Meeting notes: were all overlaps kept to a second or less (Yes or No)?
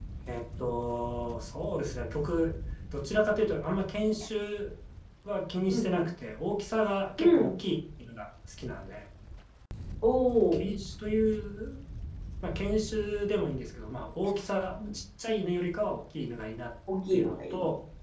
Yes